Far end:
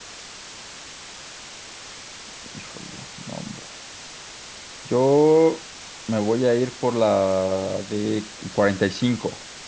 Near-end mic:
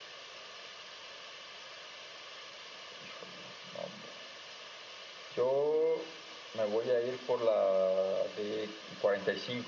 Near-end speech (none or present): none